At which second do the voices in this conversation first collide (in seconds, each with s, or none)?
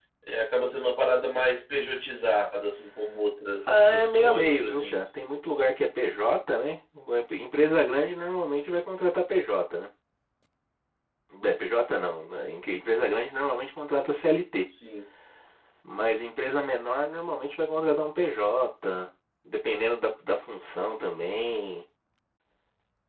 3.7 s